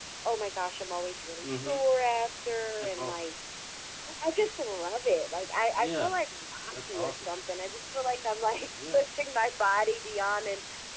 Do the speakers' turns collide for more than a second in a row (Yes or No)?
No